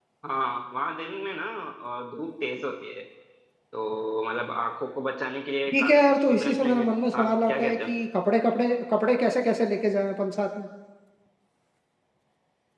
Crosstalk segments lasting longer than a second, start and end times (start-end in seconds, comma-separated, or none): 5.7-7.9